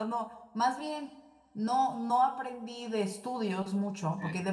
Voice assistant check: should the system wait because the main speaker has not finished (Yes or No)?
Yes